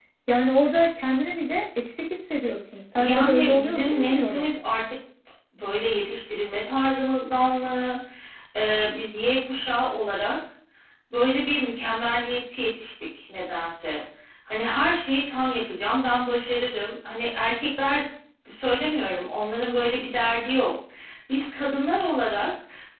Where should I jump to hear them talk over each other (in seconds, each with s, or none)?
2.7 s